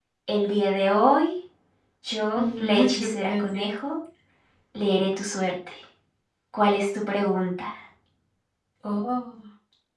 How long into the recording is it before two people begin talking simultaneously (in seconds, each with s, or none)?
2.4 s